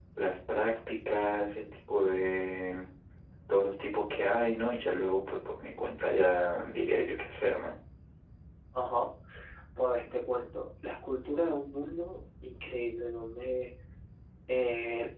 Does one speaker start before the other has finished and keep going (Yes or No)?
No